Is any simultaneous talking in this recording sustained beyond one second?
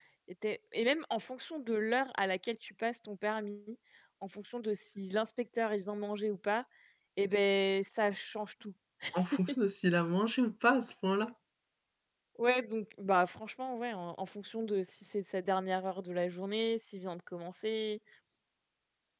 No

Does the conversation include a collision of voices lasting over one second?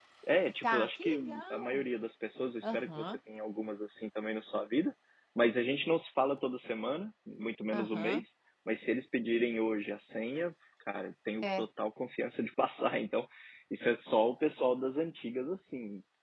Yes, from 0.6 s

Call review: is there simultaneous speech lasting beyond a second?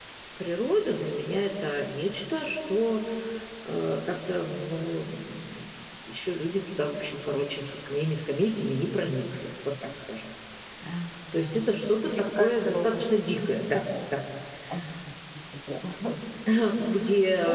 Yes, from 11.3 s

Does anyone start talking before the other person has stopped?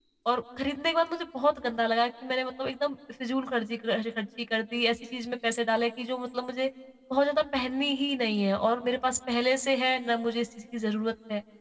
No

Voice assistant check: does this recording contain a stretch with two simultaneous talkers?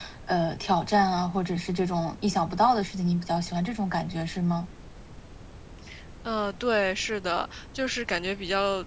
No

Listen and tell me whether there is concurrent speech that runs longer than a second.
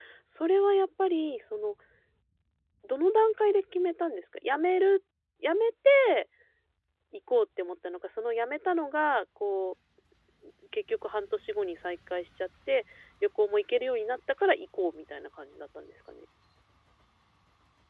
No

